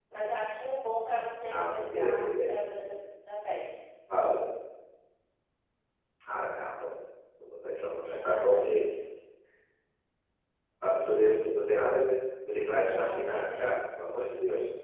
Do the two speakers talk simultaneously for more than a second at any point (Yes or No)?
Yes